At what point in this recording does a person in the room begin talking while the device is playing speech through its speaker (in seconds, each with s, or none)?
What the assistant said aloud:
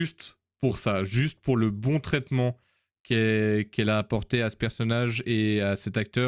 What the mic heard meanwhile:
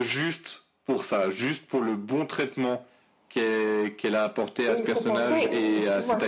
4.7 s